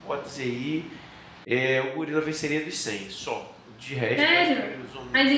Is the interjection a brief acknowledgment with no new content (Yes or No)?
No